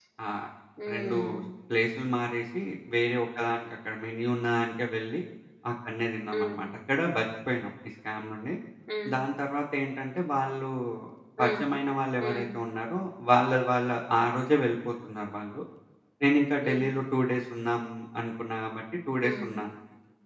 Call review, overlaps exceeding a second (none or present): none